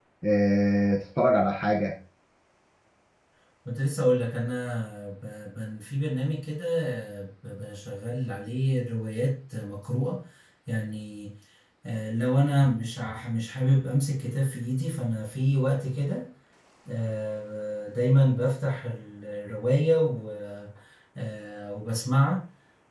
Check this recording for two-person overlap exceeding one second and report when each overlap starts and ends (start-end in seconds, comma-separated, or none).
none